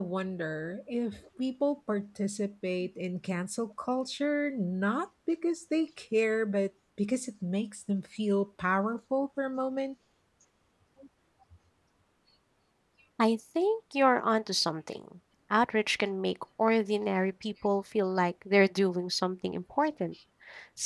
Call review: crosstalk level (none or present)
none